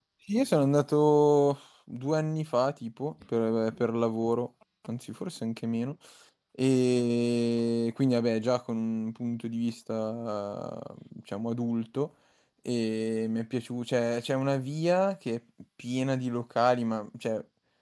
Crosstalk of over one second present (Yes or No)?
No